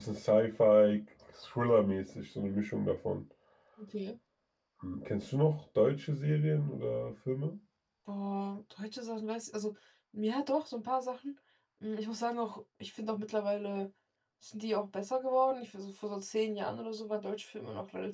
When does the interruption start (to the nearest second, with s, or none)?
none